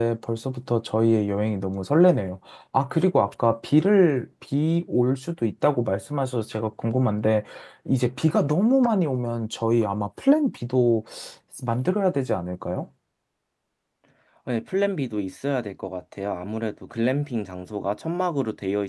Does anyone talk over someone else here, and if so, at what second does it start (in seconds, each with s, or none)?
none